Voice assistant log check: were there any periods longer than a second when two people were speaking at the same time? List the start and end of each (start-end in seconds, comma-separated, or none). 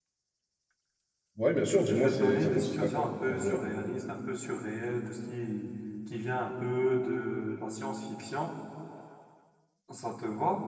1.9-3.6